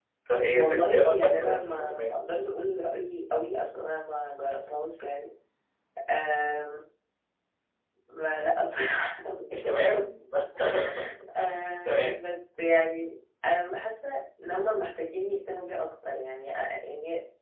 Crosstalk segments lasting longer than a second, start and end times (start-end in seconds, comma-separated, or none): 0.5-2.2